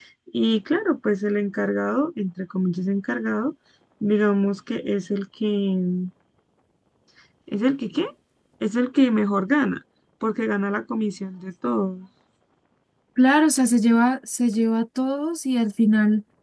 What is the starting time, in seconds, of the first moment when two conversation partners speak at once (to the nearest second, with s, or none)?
none